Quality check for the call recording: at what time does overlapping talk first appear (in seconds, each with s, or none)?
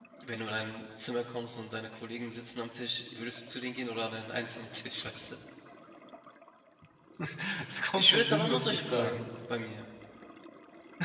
8.0 s